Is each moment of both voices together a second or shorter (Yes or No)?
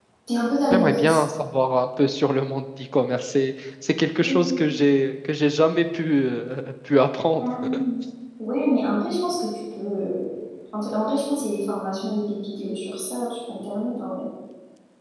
Yes